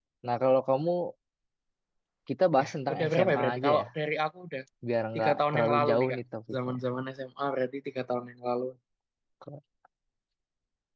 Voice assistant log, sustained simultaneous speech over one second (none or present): present